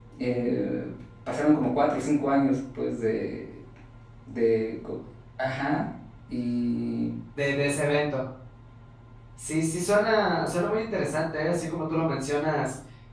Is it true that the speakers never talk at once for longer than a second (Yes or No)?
Yes